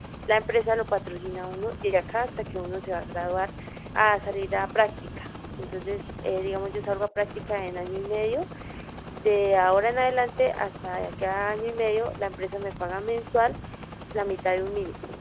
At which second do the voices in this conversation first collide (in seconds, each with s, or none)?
none